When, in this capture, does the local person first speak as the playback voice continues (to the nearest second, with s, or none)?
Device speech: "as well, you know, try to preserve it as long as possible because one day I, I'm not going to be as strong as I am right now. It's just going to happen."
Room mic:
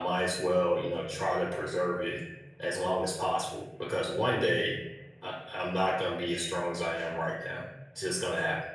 none